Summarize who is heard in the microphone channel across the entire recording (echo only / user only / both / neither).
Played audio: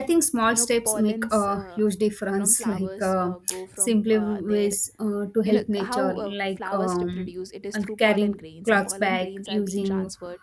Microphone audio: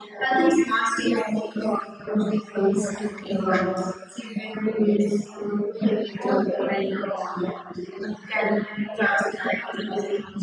both